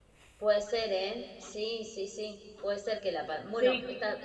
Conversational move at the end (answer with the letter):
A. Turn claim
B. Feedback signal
B